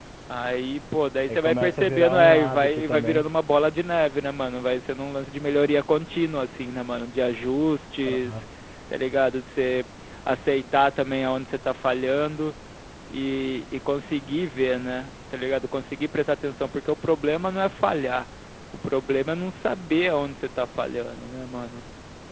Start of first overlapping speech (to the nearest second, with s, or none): 1 s